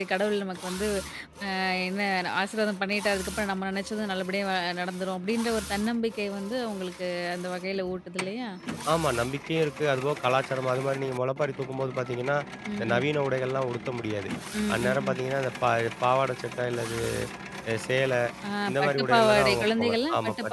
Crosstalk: present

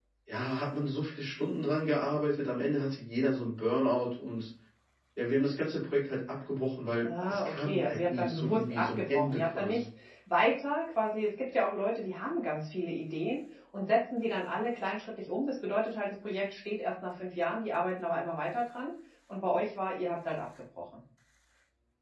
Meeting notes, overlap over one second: present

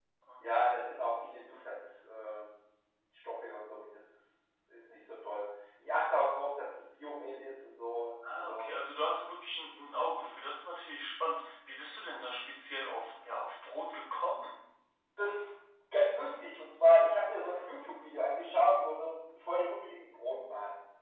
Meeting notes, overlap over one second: none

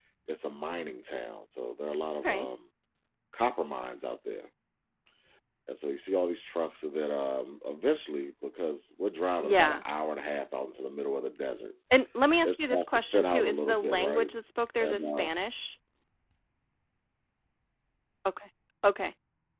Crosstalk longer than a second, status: present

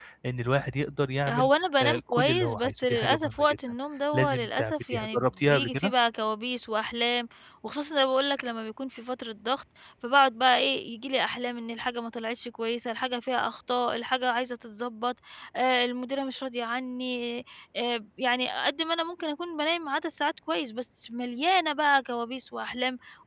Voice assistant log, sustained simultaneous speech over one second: present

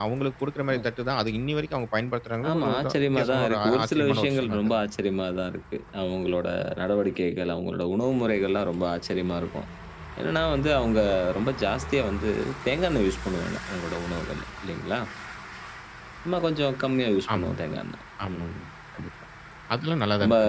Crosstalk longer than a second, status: present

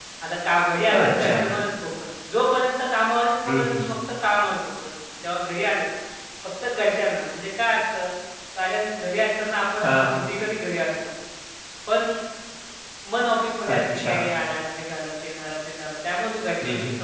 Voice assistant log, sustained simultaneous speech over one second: none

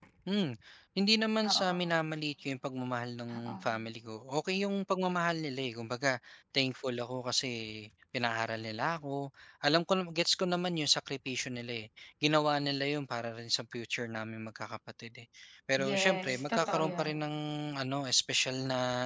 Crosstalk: present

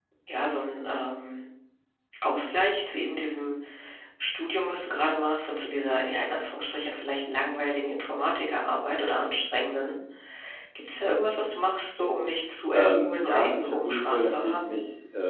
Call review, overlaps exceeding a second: present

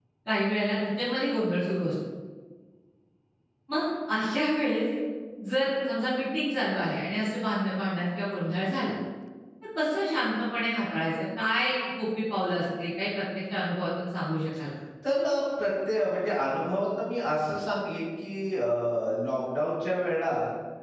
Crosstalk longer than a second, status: none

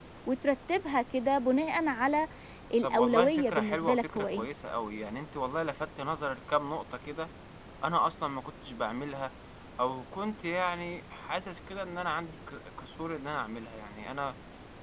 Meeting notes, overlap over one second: present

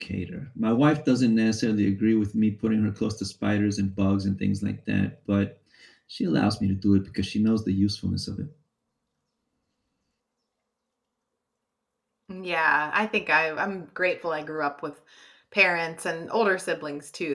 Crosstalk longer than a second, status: none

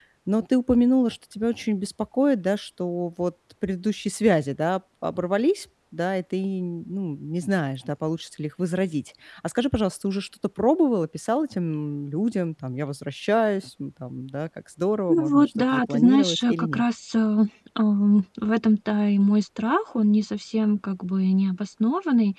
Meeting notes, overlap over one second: present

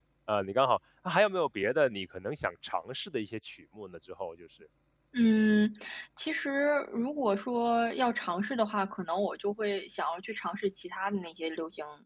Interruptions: none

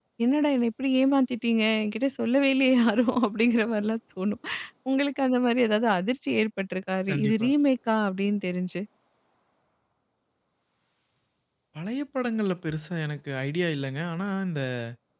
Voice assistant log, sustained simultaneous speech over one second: none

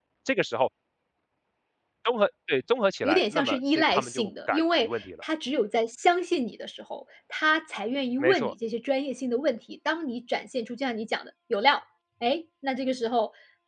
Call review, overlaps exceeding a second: present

